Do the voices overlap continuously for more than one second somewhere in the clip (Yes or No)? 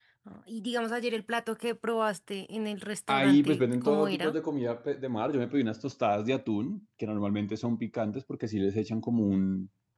Yes